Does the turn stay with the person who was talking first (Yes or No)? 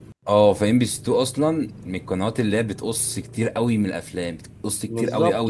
No